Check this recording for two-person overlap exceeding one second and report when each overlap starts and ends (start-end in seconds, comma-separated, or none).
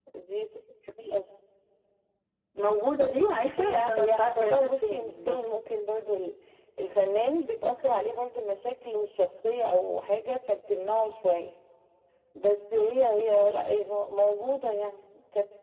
3.6-5.5